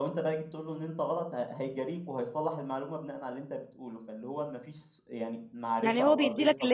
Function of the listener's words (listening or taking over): taking over